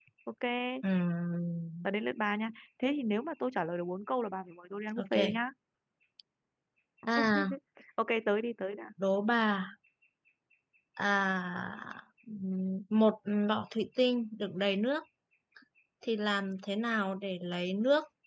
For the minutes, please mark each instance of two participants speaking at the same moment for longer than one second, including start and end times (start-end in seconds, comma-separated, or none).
none